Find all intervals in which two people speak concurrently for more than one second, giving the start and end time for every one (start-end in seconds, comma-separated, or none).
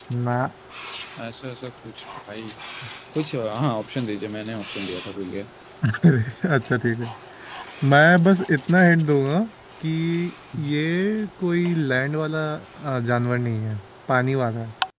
none